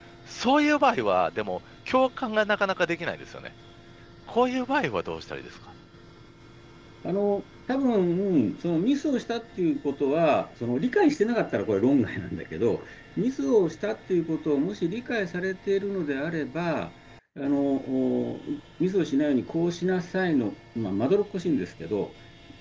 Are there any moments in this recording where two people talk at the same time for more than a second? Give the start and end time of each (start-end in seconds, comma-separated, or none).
none